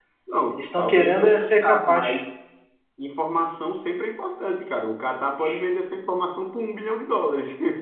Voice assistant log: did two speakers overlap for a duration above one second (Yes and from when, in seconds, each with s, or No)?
Yes, from 0.5 s